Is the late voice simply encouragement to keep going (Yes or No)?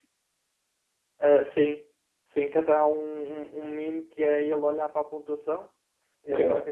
Yes